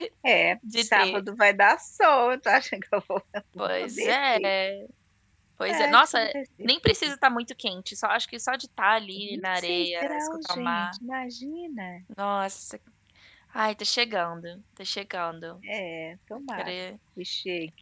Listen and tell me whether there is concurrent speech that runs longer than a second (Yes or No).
Yes